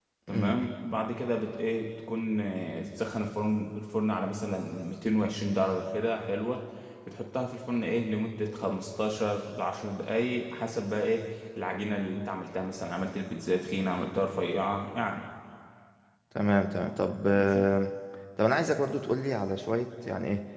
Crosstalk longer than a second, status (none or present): none